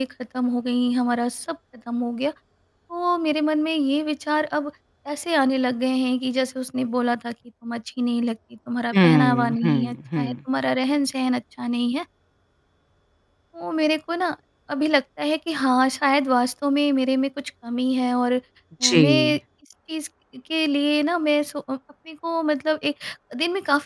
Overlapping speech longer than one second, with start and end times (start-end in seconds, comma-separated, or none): 8.9-10.4